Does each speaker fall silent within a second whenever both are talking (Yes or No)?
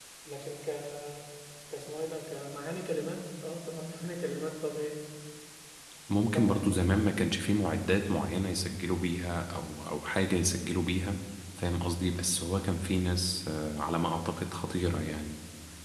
Yes